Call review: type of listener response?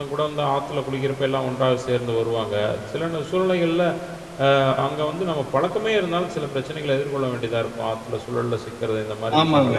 taking over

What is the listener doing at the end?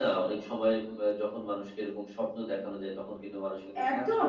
taking over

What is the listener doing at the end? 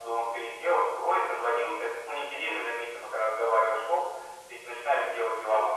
taking over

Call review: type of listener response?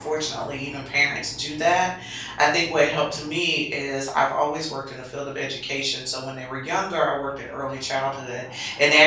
listening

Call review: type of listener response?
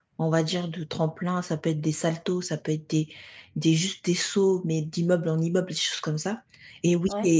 listening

